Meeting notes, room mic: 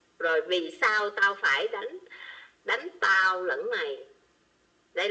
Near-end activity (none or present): none